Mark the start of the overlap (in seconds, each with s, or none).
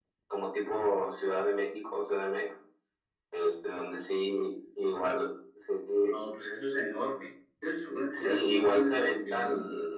8.1 s